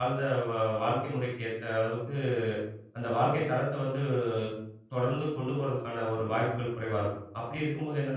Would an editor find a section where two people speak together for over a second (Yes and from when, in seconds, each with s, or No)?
No